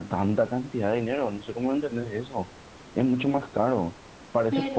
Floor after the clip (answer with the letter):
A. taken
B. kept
B